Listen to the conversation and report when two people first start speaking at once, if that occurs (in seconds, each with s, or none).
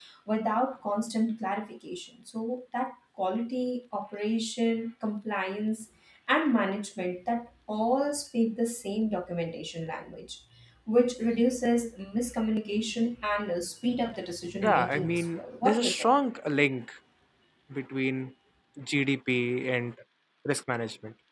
14.6 s